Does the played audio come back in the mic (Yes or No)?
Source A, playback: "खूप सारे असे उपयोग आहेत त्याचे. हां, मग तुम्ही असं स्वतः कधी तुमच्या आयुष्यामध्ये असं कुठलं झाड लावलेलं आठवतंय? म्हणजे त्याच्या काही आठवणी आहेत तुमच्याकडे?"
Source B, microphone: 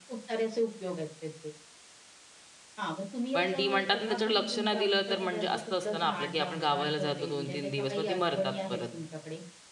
Yes